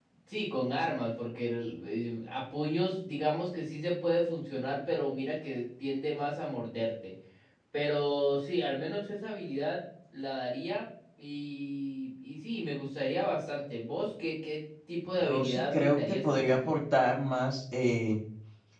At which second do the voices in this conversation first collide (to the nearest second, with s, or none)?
15 s